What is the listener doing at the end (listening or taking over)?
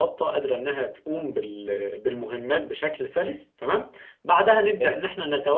listening